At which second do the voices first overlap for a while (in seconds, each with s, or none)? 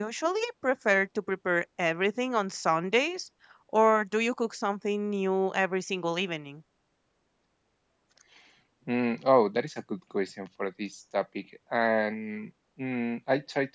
none